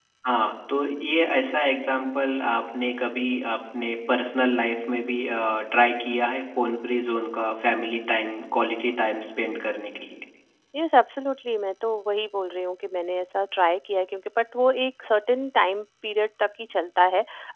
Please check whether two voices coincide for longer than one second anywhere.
No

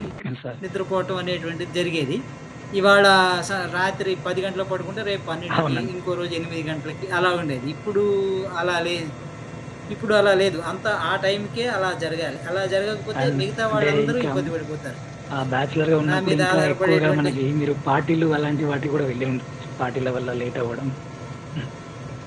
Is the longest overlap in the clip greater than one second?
Yes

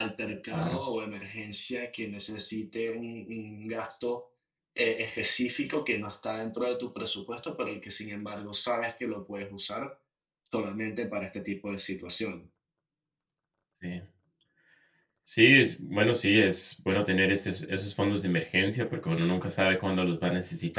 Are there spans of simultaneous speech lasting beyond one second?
No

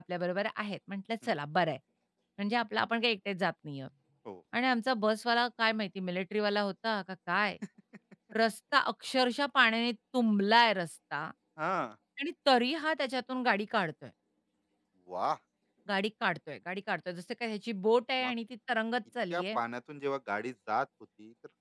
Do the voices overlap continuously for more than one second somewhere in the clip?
No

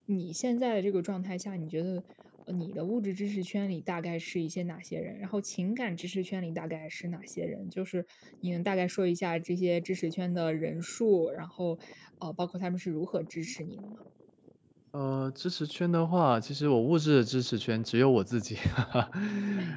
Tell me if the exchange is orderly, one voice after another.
Yes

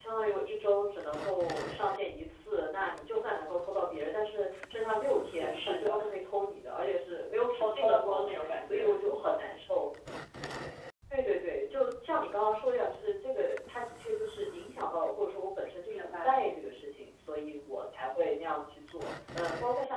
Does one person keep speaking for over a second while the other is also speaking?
Yes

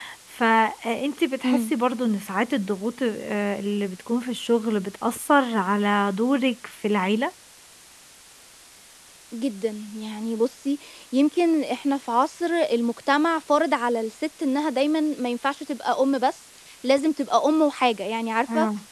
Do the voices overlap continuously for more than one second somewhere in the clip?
No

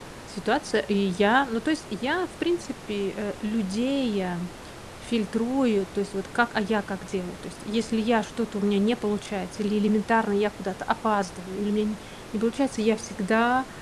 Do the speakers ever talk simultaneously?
No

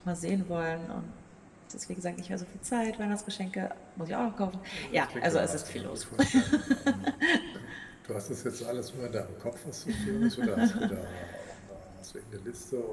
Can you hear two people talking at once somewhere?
Yes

